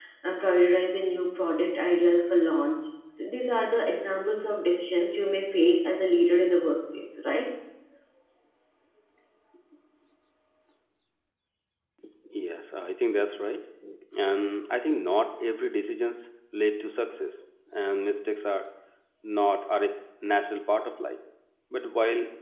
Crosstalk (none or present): none